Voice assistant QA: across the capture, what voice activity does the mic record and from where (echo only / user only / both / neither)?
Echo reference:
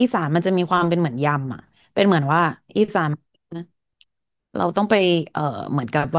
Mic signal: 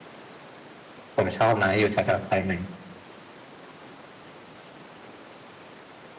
user only